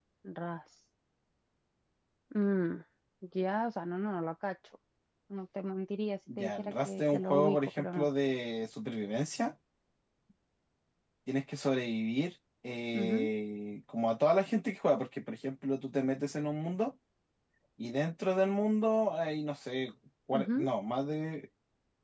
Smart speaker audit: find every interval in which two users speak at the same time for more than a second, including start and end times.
6.4-8.1

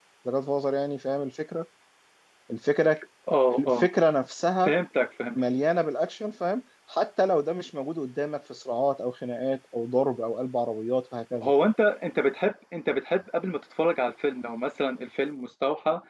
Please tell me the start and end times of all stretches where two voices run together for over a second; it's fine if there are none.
none

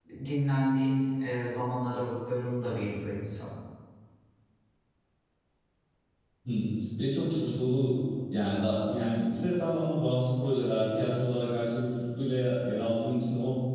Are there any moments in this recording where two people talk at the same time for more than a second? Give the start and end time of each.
none

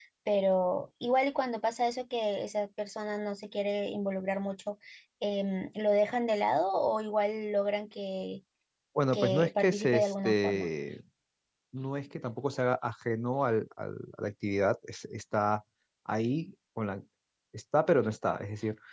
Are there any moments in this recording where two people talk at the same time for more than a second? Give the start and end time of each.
9.1-10.7

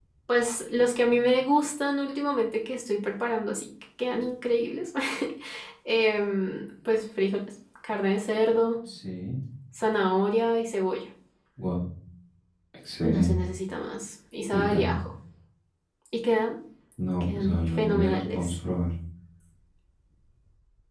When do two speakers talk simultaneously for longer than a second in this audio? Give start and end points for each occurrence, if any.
17.2-18.6

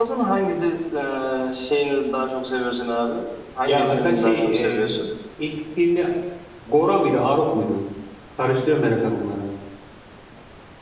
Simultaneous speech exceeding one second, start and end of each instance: 3.6-4.9

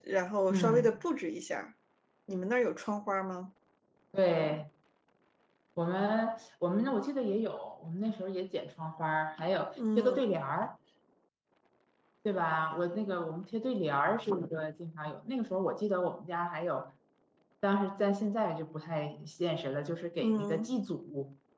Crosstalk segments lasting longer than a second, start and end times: none

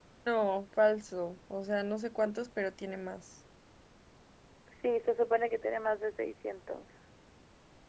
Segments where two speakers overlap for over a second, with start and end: none

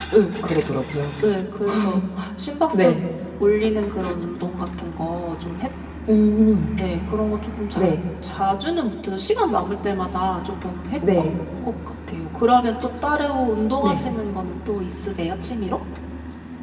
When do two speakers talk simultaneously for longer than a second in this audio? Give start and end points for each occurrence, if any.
none

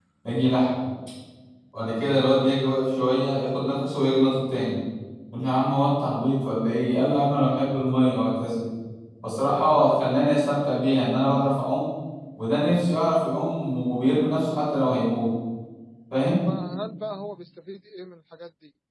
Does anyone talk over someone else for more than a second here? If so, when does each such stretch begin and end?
none

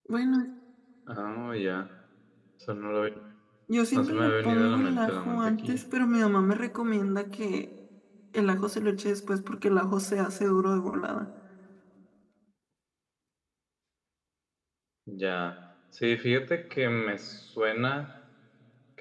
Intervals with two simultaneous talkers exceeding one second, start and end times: 3.9-5.8

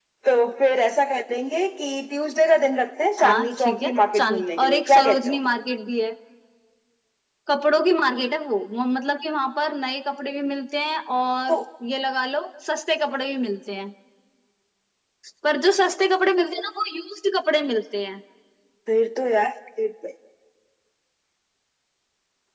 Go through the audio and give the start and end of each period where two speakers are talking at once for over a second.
3.2-5.4

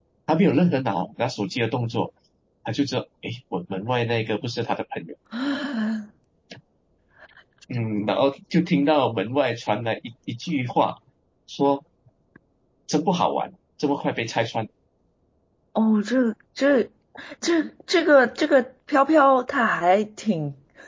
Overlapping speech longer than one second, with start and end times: none

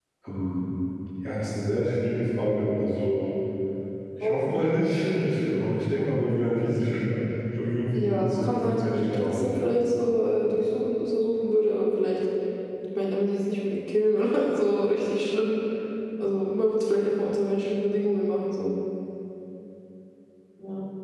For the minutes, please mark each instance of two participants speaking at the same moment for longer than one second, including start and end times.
7.9-9.8

